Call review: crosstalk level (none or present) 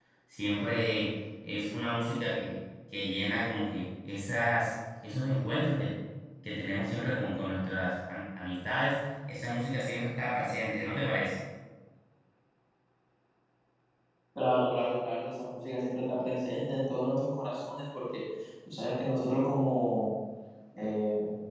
none